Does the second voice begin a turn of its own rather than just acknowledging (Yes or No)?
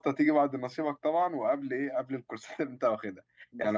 No